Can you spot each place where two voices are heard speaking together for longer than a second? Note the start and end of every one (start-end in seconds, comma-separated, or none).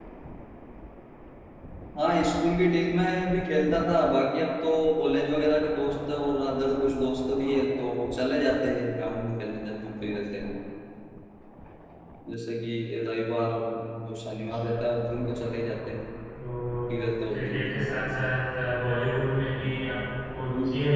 none